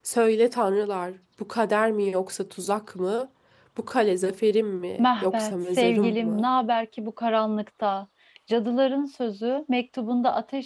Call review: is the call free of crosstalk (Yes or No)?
No